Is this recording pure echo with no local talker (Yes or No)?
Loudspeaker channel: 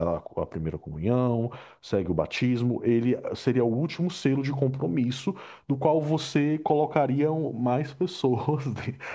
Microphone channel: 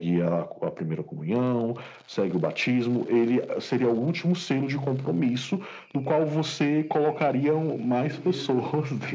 No